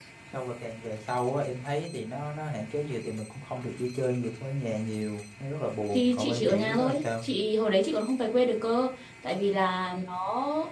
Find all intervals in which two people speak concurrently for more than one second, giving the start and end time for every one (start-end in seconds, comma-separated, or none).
5.9-7.2